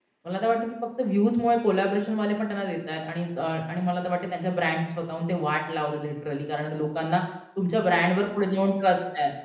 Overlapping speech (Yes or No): No